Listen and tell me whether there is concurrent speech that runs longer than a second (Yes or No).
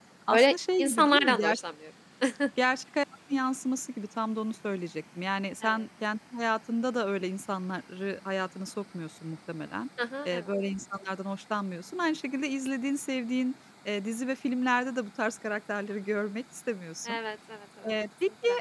Yes